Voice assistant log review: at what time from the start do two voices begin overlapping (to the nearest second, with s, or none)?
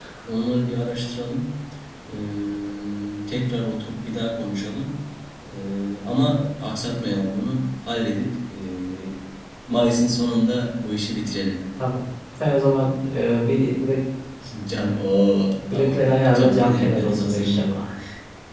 16 s